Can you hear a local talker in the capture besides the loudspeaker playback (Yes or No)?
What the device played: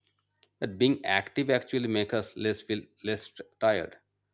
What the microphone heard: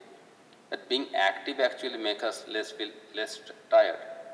No